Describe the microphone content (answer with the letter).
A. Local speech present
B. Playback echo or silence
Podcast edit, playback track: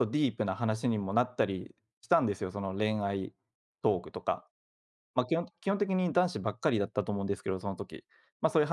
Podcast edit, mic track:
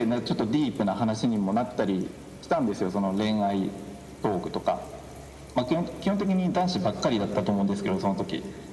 B